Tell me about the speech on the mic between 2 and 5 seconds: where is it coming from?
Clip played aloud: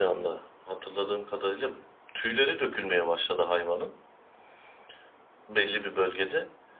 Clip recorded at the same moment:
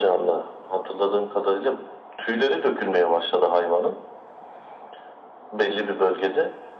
echo only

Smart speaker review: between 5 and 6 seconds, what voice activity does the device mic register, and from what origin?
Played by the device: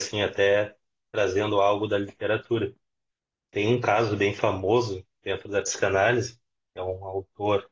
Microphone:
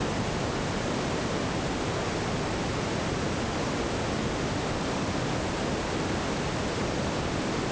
neither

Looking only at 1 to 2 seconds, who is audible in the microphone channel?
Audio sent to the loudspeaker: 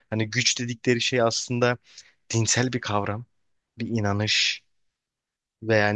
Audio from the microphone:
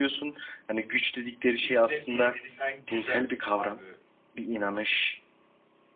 both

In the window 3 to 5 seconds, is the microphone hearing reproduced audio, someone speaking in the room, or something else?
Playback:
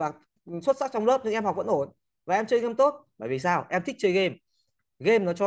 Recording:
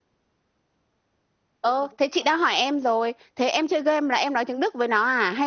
user only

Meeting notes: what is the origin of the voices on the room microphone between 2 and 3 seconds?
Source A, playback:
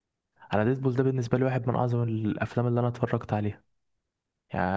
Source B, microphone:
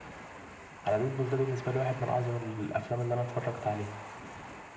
echo only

